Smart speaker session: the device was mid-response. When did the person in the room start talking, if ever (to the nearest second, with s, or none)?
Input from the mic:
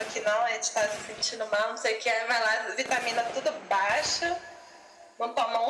none